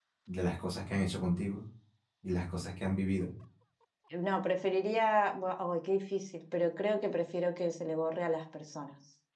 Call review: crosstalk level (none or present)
none